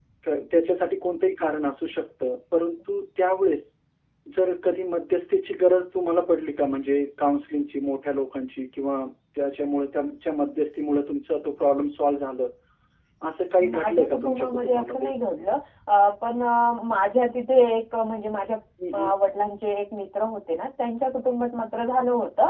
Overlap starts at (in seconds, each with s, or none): 13.7 s